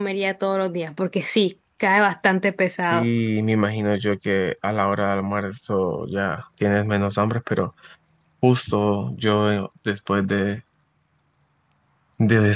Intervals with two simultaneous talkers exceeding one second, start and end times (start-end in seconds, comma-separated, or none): none